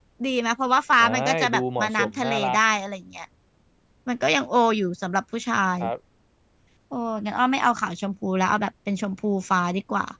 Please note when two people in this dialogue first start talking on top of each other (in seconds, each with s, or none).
1.0 s